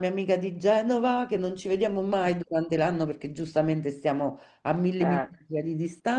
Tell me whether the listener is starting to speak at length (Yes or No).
No